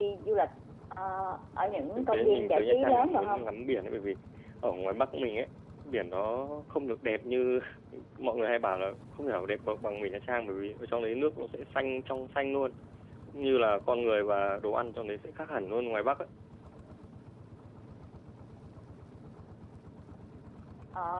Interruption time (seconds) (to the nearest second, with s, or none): 2 s